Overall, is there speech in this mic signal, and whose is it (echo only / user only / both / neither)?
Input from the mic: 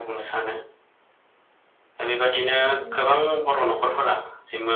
both